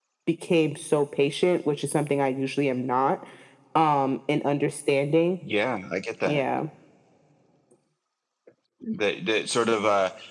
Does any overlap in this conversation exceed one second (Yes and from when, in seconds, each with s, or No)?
No